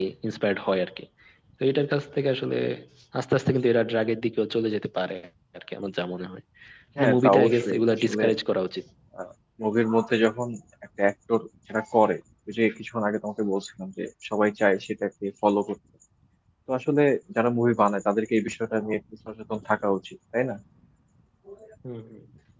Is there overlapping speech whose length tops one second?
Yes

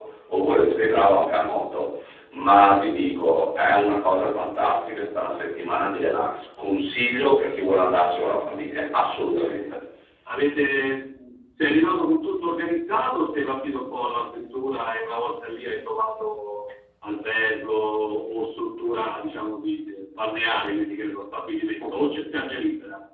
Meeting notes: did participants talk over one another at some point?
No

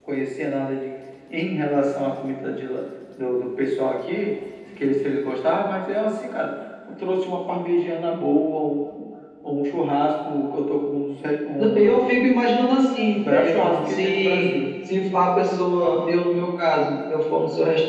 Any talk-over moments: Yes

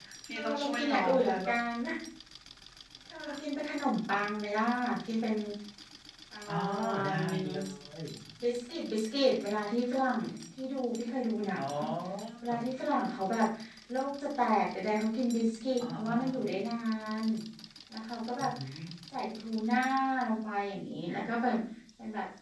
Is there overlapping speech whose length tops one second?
Yes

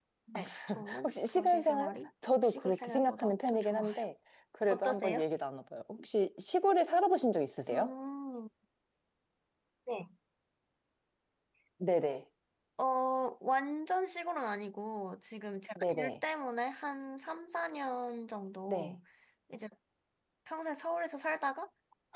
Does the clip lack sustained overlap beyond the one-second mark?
No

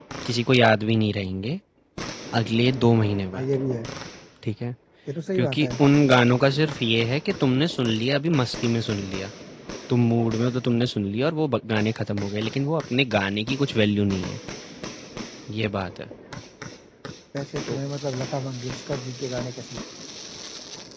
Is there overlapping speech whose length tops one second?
No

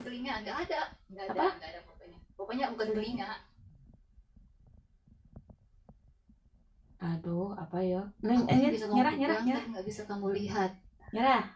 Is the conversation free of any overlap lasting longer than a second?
No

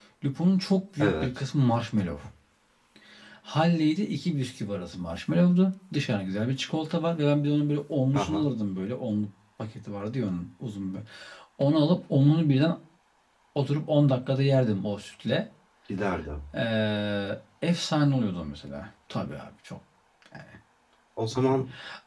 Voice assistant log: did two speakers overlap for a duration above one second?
No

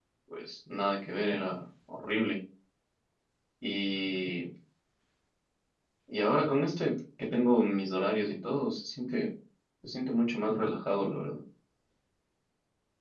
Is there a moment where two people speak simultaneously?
No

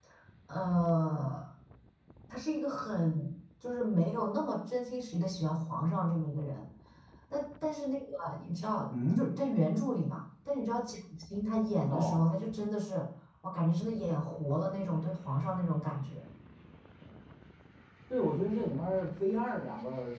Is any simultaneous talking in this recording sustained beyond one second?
No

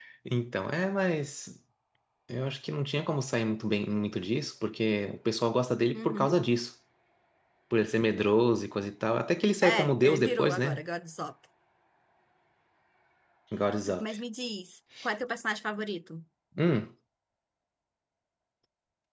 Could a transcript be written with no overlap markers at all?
No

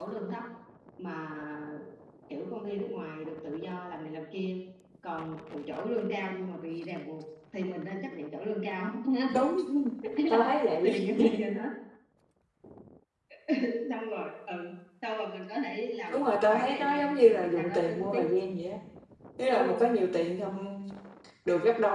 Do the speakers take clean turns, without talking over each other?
No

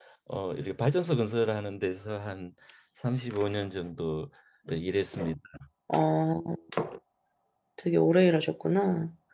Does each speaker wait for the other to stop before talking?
Yes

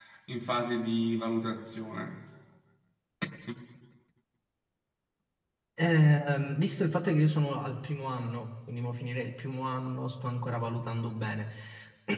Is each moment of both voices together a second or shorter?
Yes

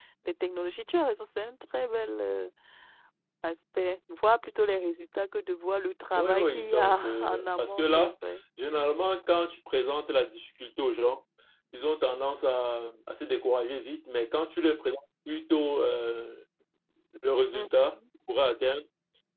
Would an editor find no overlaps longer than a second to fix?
No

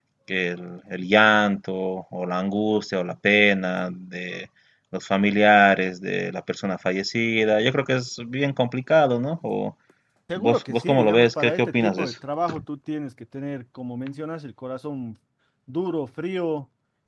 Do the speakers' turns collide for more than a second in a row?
Yes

